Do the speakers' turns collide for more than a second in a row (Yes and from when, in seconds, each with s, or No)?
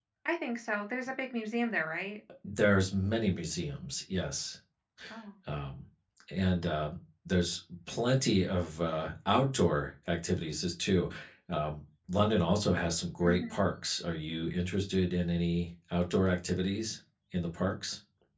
No